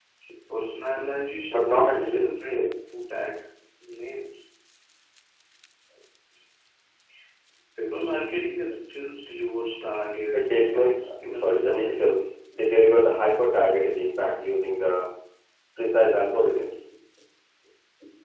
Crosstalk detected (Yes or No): Yes